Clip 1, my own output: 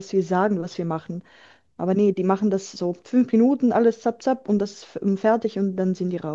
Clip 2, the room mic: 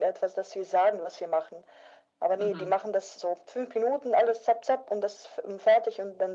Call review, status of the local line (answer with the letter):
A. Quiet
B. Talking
B